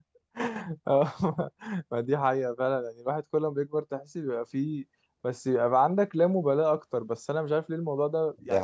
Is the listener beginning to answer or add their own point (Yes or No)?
No